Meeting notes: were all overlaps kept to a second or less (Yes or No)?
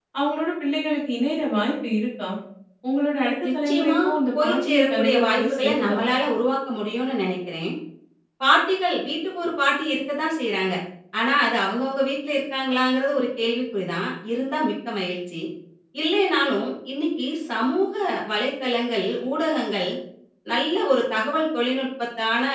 No